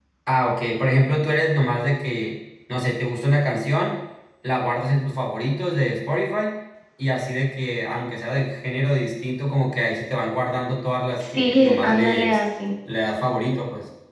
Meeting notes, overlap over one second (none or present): present